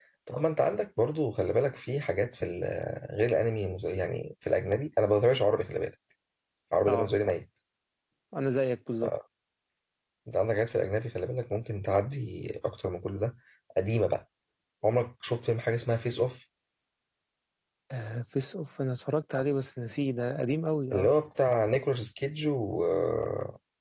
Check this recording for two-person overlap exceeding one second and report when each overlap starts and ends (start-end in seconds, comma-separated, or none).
none